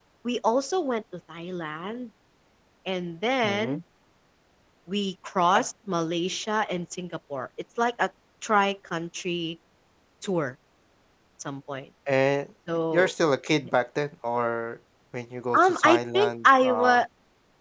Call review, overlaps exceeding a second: present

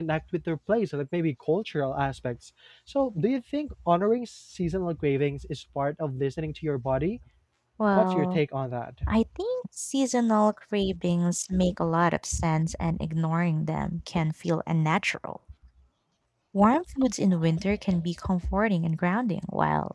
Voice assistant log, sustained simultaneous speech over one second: none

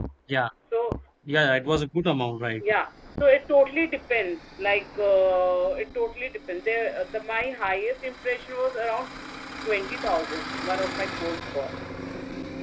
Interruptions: none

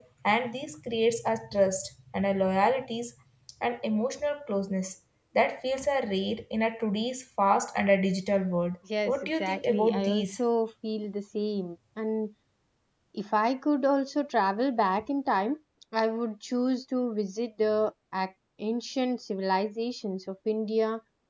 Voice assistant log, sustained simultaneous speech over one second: present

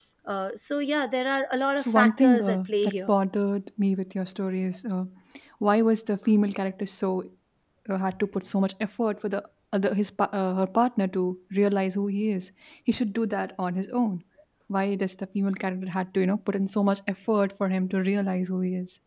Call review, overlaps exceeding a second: present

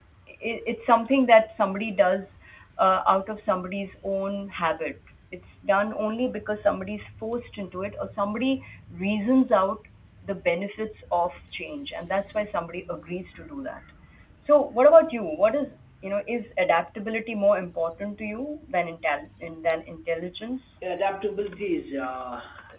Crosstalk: none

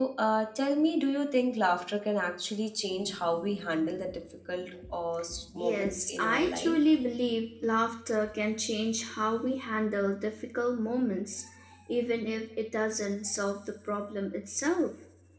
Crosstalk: present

